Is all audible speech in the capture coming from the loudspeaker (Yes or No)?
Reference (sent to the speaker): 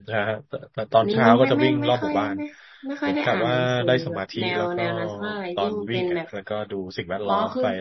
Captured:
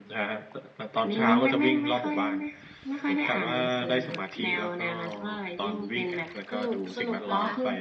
No